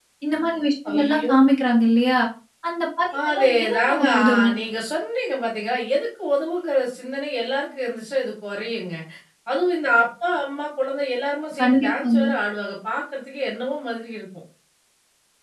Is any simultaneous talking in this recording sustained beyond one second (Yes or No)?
Yes